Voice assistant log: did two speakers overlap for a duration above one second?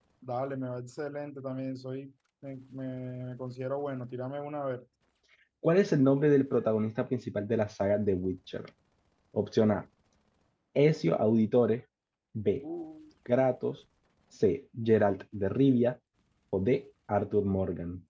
No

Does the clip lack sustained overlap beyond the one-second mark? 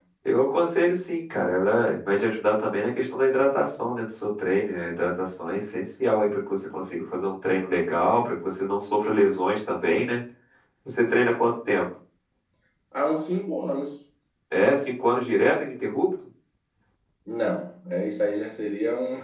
Yes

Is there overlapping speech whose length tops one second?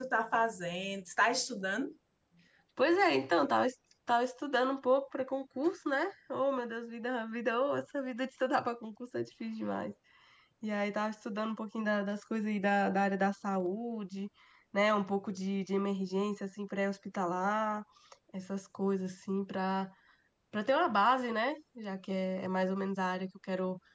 No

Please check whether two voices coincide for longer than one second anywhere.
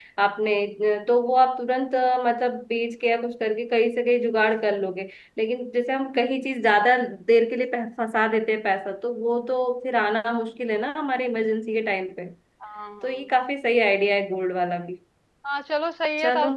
No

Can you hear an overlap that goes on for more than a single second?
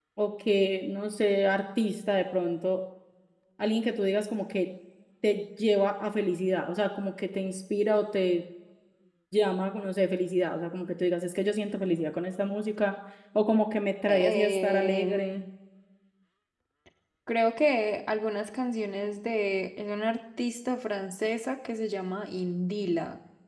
Yes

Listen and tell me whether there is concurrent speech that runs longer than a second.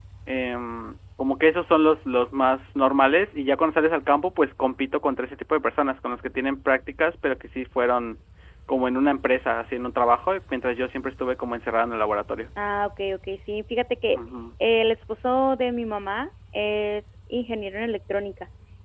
No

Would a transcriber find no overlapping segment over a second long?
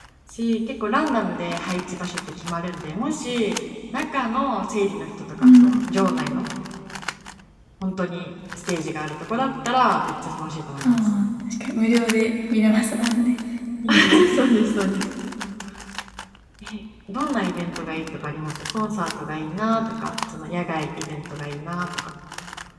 Yes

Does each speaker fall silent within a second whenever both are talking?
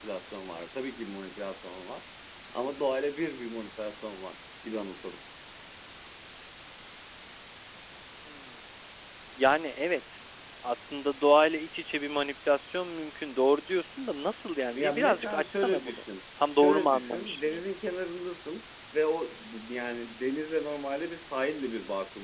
No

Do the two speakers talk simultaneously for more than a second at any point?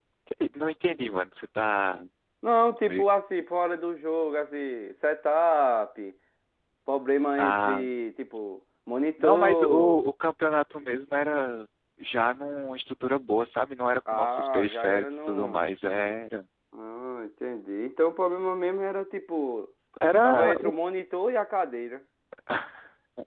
Yes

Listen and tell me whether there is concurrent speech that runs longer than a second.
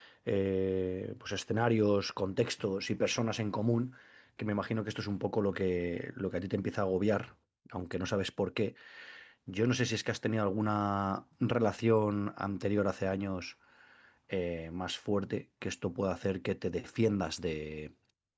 No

